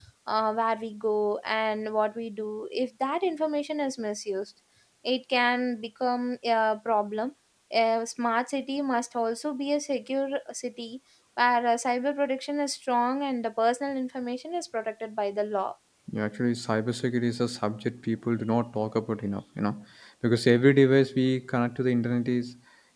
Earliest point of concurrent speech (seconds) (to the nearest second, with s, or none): none